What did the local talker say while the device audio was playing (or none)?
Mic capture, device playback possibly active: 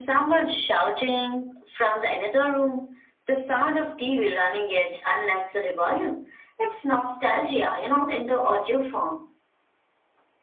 none